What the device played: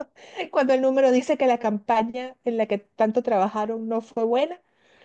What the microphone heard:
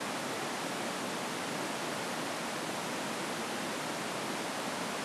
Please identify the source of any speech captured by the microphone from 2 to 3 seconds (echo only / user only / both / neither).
neither